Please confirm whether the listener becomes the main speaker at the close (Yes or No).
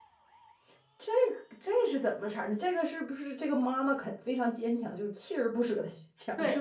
Yes